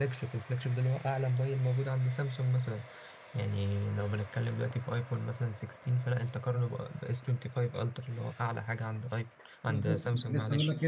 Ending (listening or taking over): taking over